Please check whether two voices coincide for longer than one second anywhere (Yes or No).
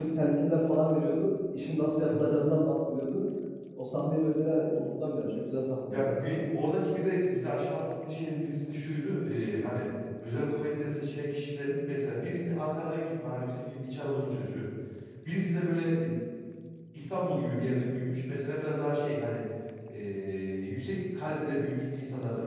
No